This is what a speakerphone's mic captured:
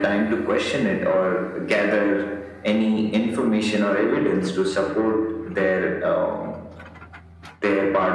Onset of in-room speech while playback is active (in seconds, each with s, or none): none